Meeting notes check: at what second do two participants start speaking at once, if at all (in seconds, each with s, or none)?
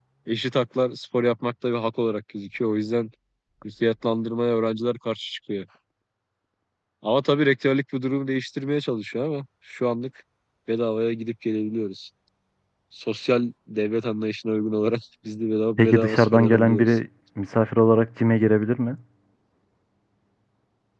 15.8 s